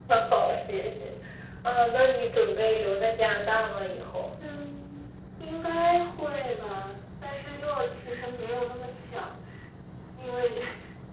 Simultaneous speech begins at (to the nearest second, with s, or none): none